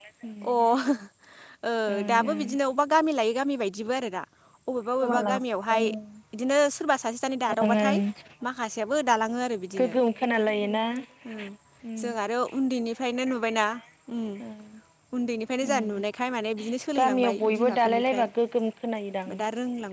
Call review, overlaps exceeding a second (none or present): present